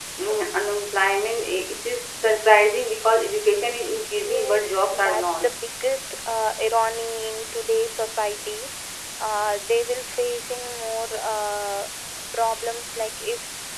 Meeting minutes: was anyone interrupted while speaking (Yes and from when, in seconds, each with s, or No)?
Yes, from 4.2 s